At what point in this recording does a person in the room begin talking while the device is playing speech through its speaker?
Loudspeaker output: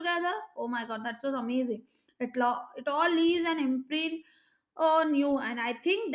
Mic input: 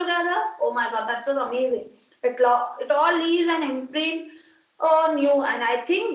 none

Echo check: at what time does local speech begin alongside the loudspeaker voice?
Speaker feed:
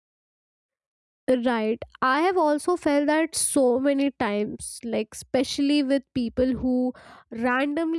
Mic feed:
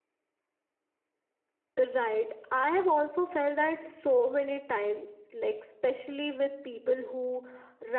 none

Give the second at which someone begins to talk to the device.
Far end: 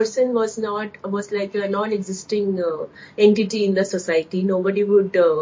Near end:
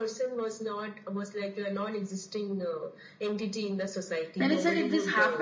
4 s

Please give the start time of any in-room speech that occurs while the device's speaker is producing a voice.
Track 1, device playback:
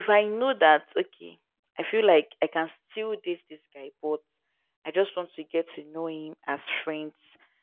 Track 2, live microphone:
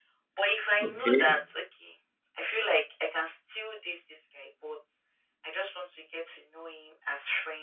1 s

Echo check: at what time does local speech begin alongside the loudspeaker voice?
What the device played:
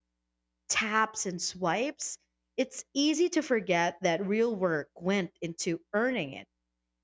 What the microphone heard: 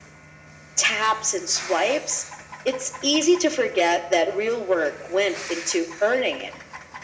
none

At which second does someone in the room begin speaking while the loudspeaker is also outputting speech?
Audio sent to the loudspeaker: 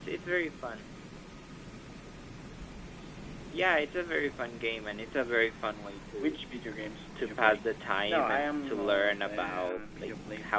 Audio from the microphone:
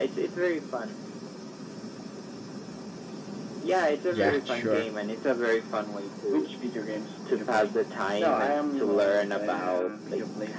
4 s

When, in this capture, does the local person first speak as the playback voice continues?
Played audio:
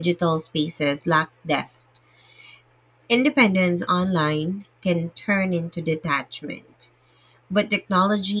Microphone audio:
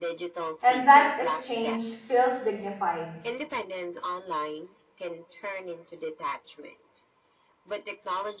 1 s

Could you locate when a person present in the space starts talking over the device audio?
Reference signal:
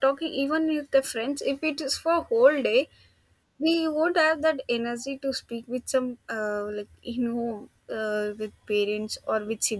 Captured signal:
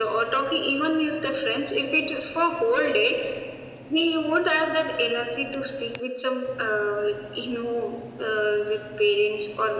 none

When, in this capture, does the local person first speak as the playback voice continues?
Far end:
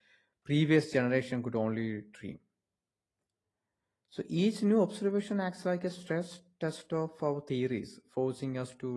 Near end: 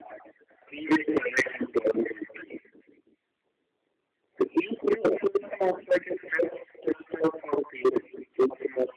none

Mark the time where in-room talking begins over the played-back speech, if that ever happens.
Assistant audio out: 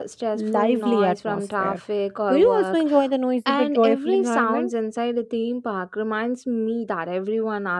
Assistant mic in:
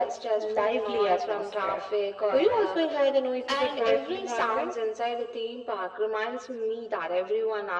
none

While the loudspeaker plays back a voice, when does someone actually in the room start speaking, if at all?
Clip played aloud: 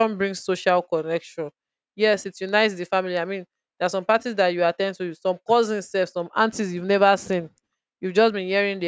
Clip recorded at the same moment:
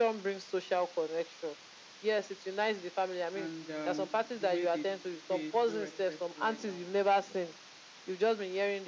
3 s

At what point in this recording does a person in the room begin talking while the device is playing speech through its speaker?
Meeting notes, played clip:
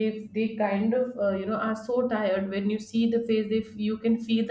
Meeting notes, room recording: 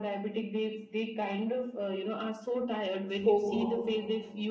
3 s

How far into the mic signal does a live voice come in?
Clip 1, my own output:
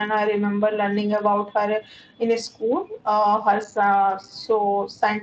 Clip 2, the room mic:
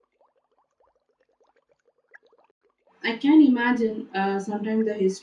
3 s

